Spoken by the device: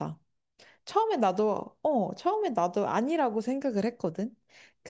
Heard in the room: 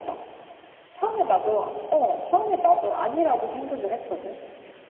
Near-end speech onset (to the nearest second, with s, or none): none